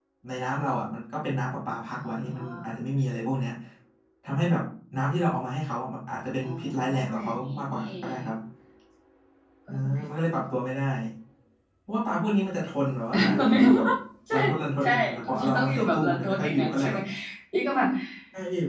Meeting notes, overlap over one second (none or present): present